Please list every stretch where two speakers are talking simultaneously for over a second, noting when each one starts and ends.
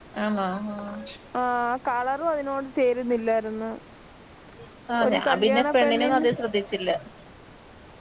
5.1-6.3

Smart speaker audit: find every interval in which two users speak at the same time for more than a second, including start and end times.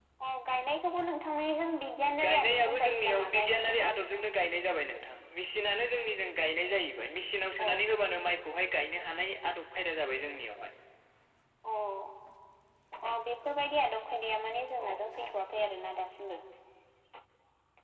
2.2-3.9

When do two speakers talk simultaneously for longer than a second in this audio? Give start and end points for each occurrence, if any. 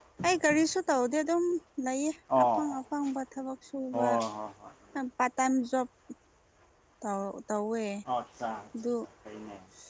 none

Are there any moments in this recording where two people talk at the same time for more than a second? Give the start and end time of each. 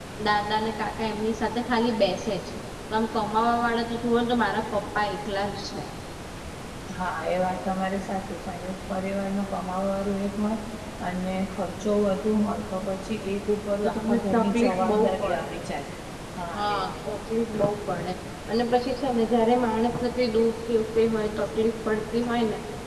13.8-15.5

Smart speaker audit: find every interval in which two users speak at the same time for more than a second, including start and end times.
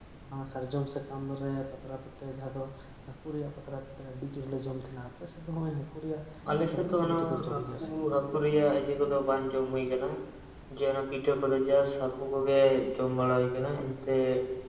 6.6-8.1

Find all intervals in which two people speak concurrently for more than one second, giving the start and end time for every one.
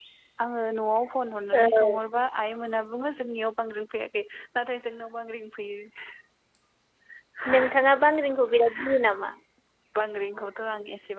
none

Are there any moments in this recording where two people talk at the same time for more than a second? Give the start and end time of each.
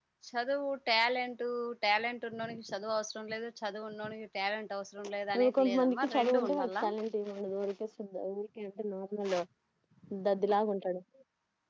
5.4-6.8

